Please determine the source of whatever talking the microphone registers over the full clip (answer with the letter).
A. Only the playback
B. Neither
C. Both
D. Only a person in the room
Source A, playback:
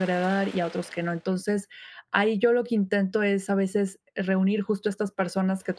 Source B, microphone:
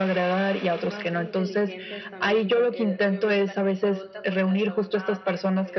C